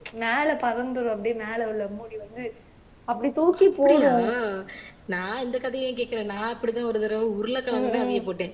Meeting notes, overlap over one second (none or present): none